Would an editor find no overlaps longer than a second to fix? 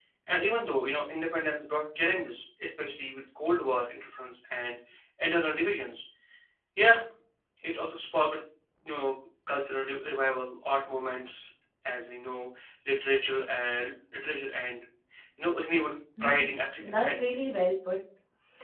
No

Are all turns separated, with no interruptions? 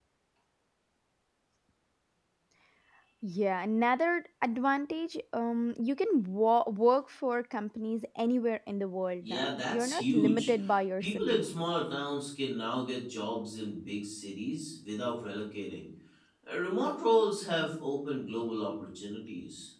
No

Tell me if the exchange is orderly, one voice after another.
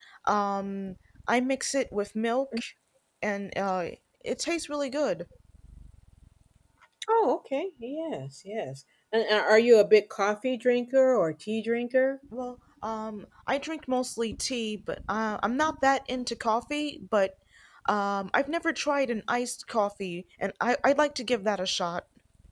Yes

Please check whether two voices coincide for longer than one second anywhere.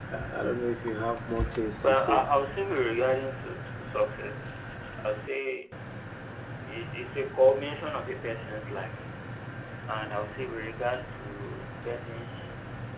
No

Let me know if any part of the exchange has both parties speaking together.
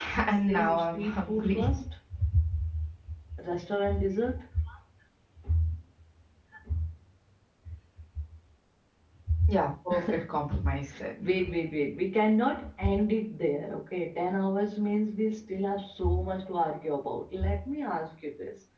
Yes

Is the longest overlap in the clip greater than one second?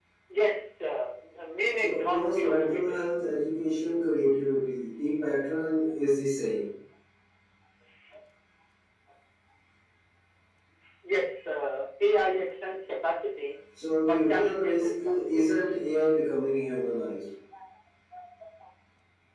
Yes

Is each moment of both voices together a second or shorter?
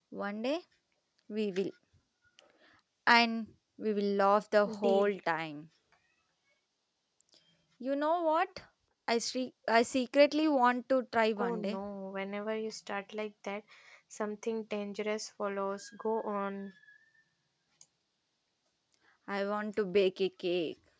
Yes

